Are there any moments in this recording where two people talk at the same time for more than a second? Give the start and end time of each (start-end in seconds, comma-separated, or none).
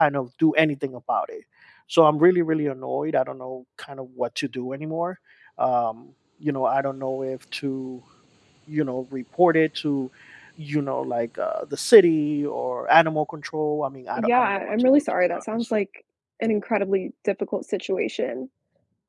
14.2-15.6